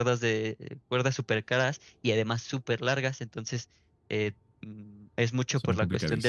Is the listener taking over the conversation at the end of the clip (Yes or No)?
No